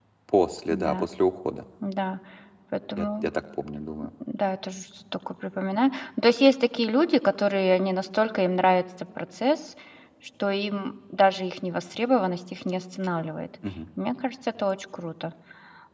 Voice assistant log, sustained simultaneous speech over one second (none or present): none